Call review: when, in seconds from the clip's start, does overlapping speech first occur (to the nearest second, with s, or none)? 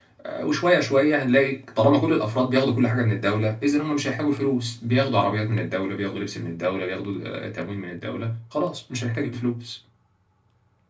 none